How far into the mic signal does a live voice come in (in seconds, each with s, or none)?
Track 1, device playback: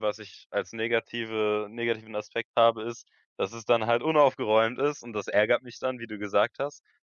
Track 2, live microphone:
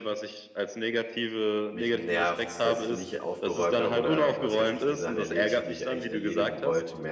1.7 s